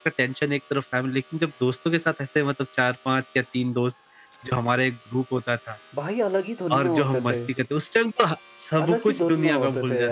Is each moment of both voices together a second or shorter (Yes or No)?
No